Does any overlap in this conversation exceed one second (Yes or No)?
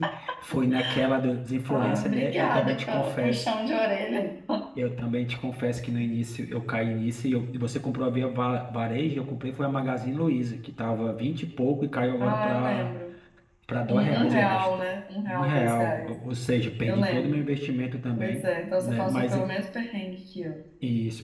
Yes